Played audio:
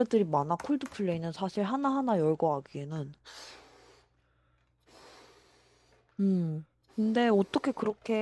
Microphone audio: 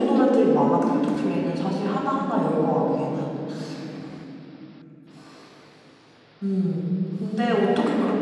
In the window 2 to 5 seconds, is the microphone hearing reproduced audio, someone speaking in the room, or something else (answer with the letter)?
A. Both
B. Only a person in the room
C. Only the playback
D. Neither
C